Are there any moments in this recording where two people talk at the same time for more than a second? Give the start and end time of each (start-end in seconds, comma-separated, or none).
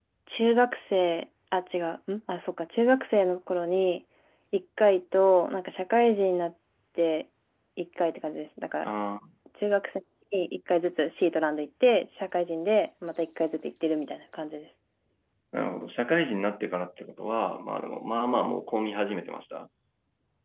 none